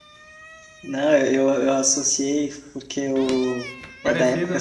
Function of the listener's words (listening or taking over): listening